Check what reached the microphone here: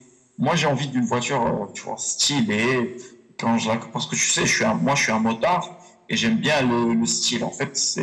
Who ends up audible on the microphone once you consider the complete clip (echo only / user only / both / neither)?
echo only